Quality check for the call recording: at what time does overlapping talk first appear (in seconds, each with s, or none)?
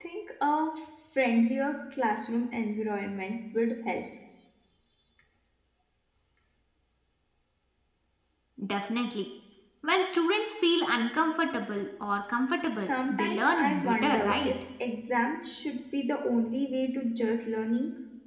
12.9 s